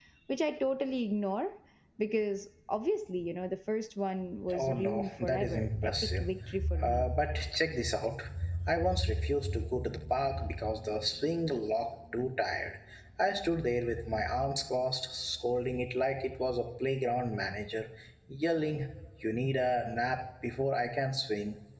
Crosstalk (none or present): present